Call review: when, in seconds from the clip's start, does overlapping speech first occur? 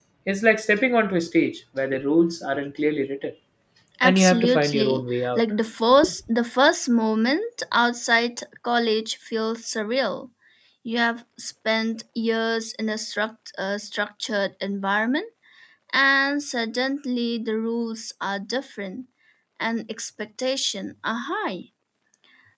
4 s

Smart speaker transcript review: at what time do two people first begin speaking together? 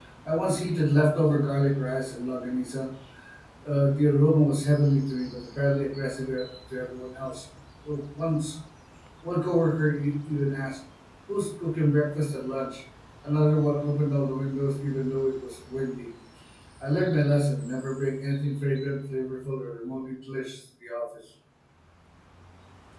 none

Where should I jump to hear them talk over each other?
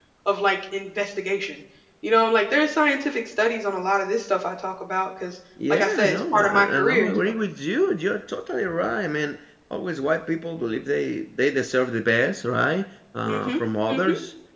6 s

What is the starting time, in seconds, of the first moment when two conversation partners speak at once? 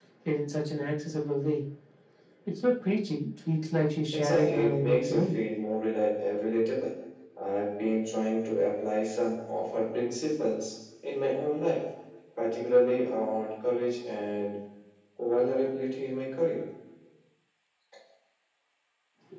4 s

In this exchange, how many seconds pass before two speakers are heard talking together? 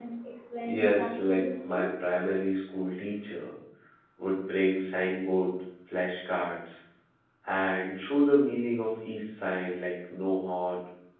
1 s

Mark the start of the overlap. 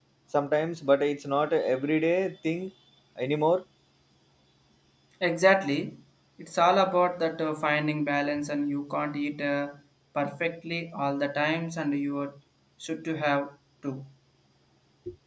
none

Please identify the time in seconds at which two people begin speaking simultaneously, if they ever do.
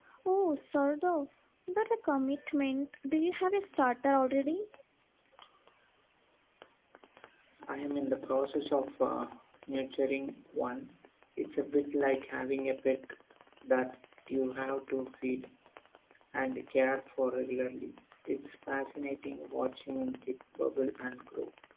none

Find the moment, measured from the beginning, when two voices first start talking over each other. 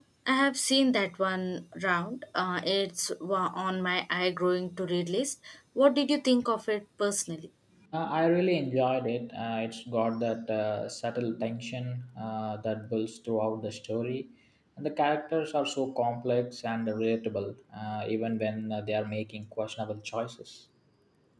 none

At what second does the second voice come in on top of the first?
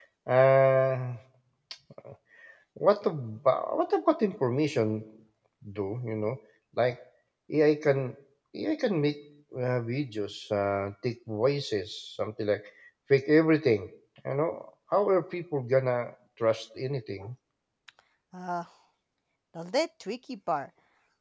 none

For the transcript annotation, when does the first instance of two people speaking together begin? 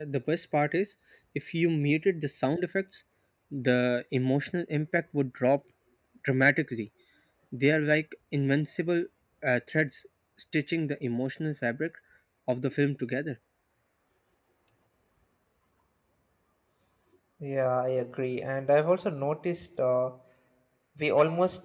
none

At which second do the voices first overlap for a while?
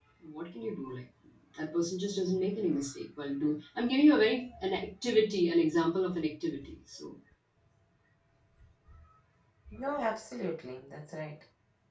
none

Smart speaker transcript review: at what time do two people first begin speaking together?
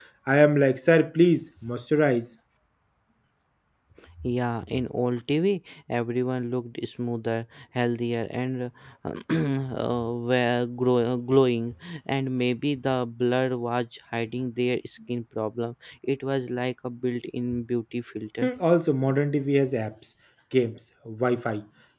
none

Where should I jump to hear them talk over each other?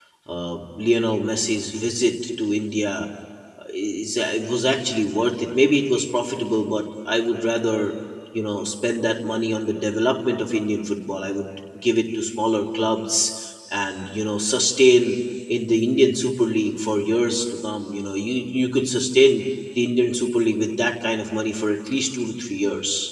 none

